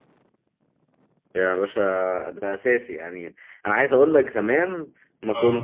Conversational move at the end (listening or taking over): listening